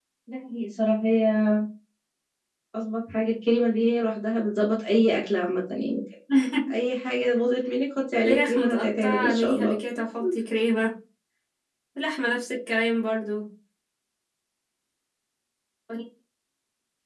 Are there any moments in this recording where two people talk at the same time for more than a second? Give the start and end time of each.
8.2-9.8

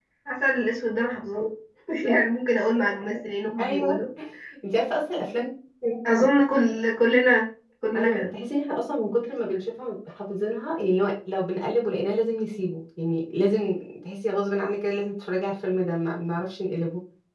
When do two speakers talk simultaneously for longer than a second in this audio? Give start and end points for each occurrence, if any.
none

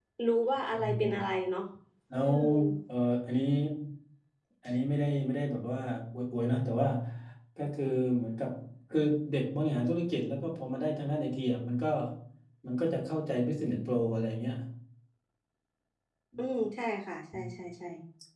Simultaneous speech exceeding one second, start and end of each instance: none

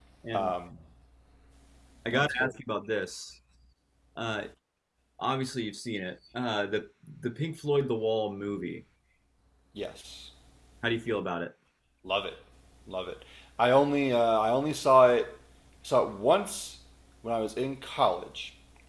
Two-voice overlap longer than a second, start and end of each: none

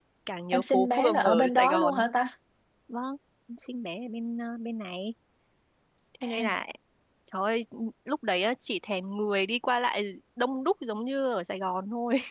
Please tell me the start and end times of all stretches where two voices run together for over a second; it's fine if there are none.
0.5-1.9

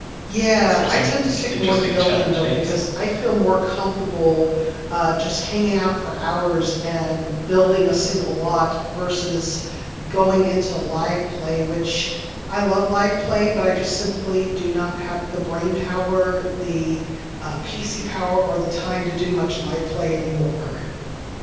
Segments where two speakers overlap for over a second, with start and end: 0.6-2.7

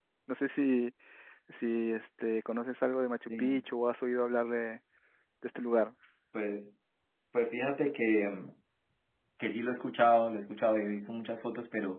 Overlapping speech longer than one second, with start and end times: none

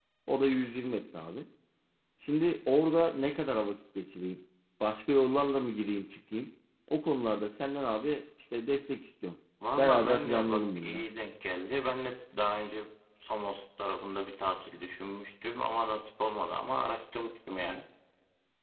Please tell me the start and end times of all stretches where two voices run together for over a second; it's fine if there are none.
9.8-11.1

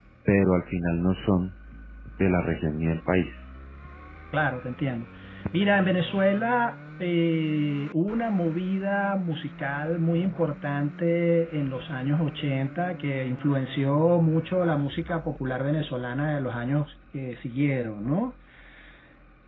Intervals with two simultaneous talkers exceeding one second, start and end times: none

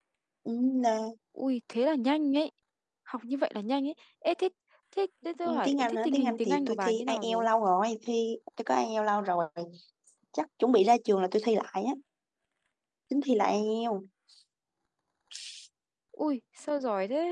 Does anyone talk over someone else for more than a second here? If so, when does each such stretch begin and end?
5.4-7.5

